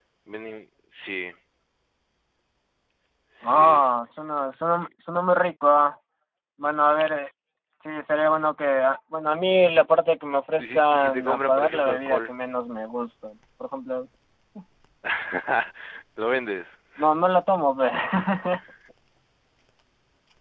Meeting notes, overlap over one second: present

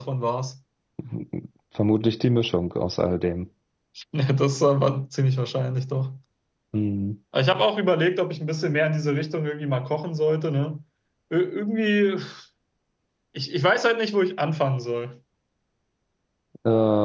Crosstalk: none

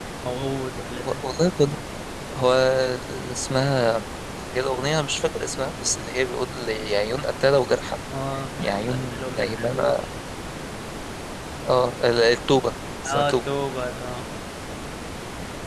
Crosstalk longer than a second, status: present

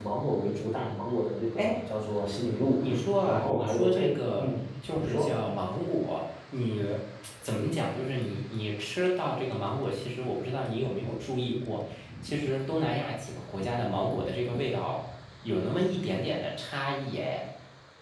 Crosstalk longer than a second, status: present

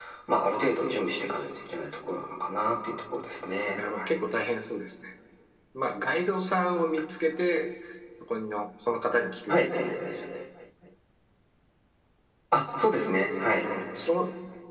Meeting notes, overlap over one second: none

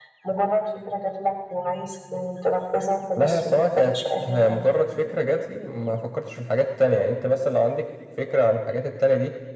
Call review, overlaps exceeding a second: present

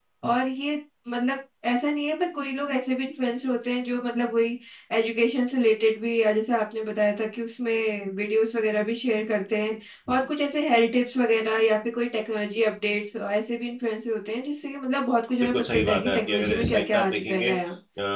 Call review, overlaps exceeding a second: present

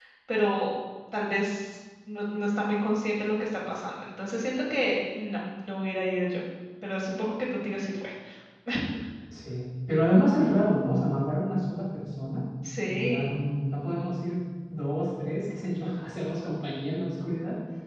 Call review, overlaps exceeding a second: none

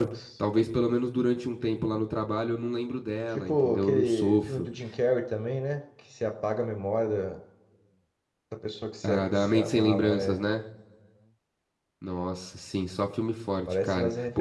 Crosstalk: present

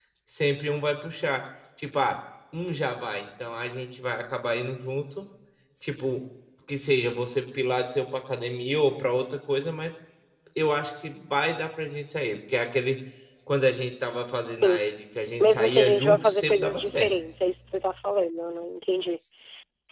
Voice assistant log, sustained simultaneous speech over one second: present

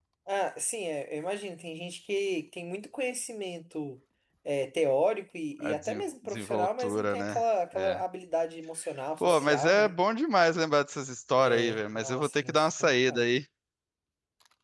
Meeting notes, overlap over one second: present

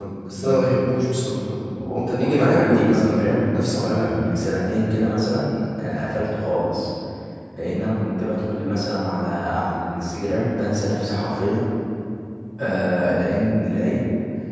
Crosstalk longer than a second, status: present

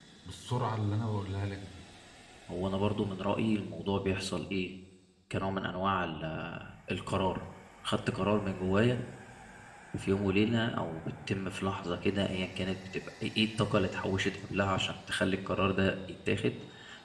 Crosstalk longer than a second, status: none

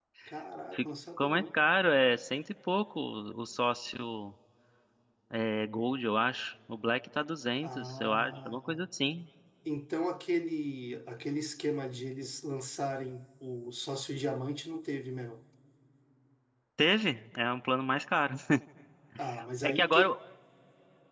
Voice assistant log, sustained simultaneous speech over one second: present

